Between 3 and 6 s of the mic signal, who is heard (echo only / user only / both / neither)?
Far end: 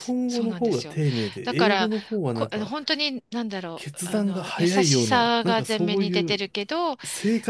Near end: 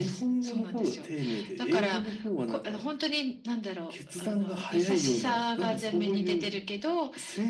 echo only